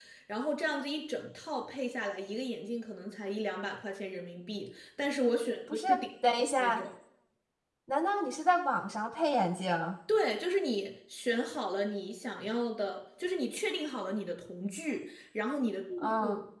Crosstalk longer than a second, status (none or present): none